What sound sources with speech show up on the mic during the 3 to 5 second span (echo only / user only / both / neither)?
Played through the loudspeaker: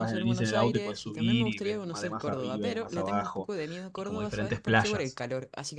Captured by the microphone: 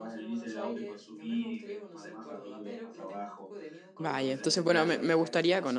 both